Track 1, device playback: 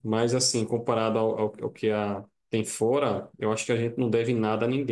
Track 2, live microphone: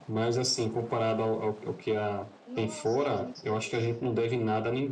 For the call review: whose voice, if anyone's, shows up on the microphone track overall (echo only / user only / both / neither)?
both